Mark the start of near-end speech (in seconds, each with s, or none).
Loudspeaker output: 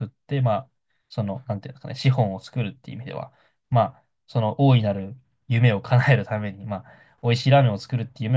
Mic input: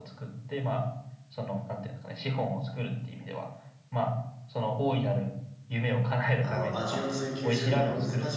6.4 s